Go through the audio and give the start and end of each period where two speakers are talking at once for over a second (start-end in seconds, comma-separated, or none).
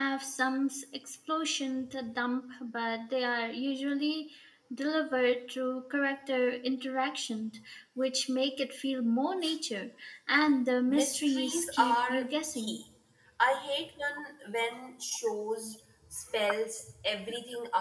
10.9-12.8